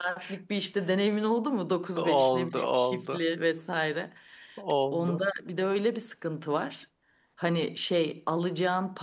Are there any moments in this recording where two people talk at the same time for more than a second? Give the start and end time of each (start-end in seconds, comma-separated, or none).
2.0-3.2